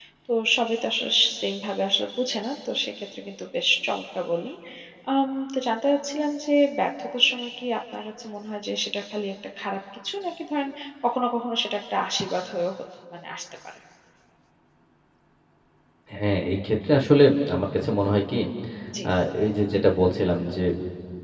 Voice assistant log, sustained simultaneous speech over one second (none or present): none